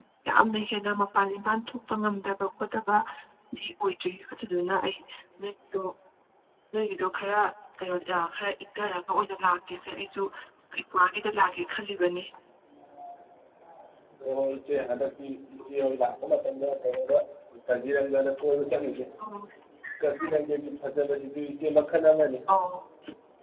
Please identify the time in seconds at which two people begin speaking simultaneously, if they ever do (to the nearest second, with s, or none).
none